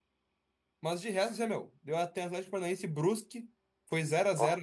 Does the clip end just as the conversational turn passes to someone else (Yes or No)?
No